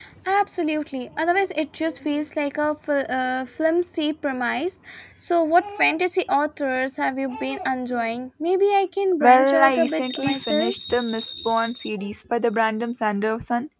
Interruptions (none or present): present